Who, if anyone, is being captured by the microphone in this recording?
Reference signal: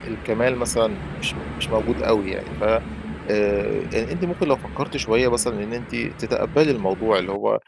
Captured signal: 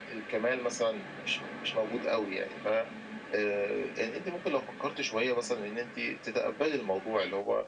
echo only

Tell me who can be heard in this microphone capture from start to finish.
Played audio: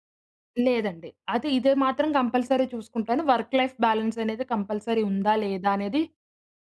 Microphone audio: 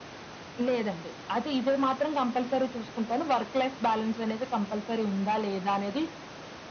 echo only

